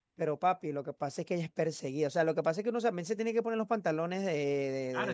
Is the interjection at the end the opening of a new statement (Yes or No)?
Yes